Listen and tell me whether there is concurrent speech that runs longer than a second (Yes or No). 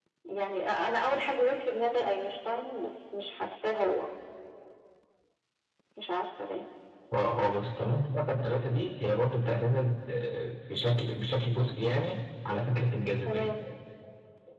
No